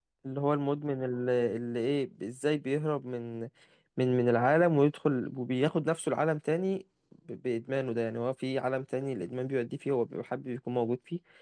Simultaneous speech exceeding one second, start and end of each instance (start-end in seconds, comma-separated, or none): none